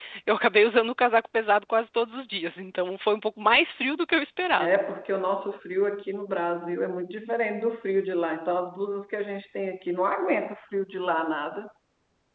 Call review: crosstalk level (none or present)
none